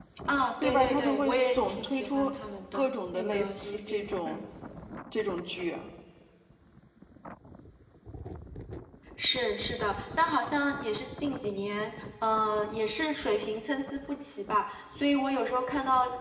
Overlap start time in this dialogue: 1 s

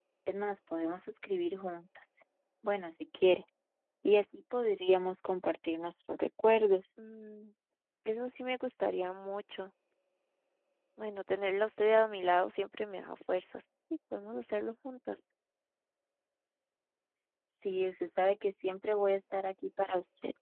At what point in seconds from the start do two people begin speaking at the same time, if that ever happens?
none

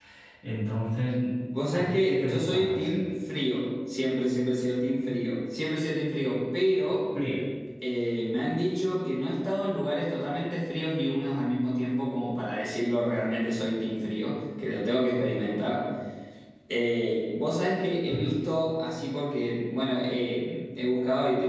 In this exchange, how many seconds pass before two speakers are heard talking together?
2 s

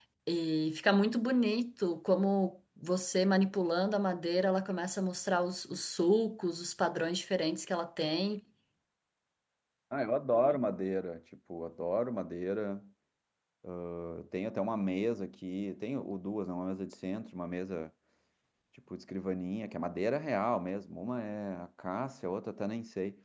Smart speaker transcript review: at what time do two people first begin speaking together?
none

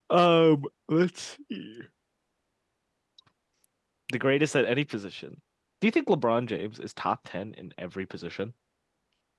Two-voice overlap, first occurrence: none

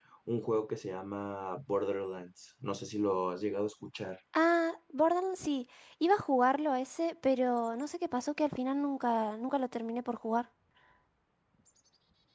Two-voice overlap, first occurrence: none

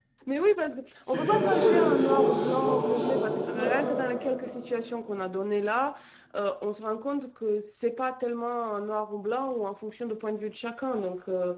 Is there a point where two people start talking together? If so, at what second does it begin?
1 s

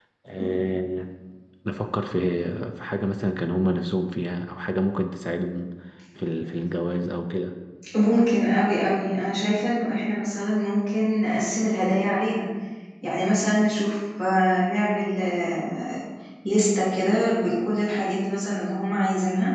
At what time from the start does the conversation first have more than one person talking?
none

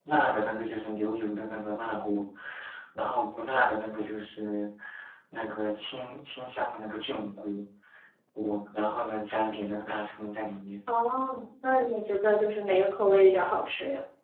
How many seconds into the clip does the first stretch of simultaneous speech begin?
none

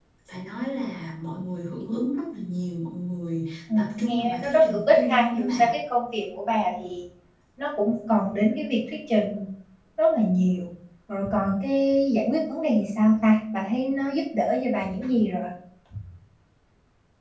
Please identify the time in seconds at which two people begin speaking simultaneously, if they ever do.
4 s

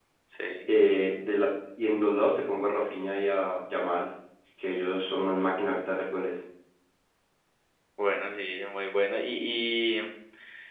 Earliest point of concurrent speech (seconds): none

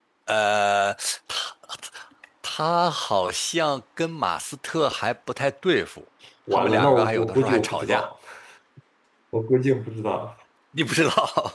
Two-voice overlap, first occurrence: 6 s

